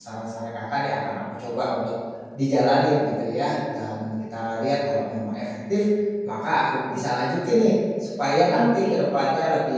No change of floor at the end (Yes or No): Yes